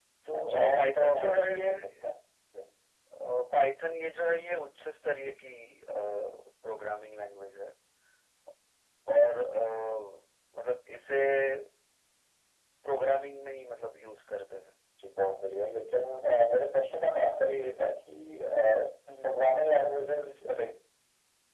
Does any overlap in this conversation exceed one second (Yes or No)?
Yes